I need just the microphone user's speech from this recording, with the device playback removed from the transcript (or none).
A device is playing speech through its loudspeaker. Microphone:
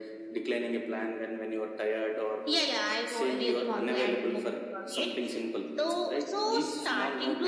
none